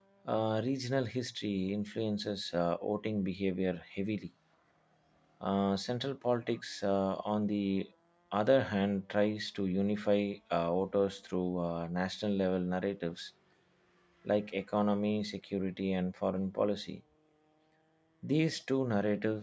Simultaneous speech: No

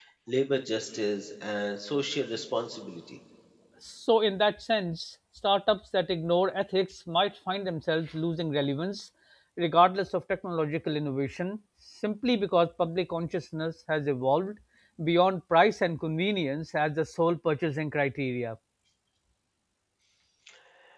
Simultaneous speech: No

